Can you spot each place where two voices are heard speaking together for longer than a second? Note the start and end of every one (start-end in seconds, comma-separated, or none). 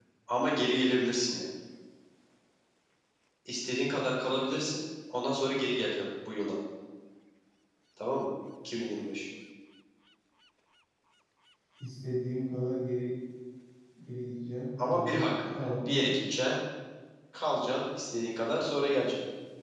14.9-16.1